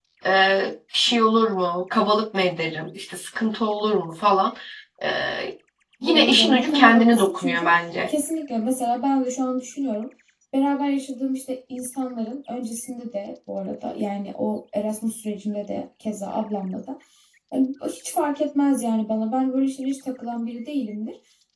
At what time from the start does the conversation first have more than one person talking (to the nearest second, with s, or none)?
6 s